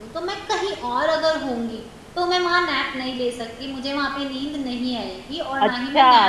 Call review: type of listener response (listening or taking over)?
taking over